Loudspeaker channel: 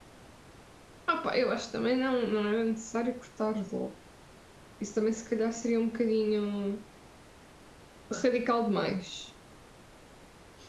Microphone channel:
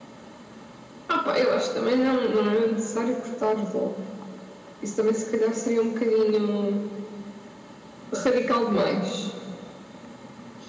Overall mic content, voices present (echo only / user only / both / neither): echo only